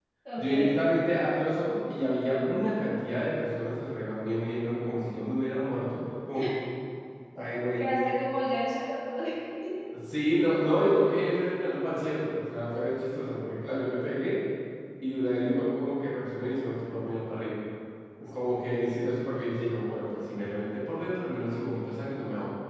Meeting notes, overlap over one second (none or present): none